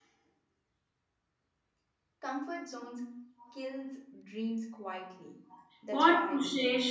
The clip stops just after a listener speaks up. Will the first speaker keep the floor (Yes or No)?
No